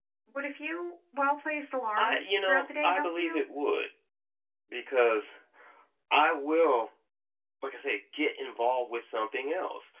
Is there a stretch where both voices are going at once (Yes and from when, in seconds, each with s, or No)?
Yes, from 2.0 s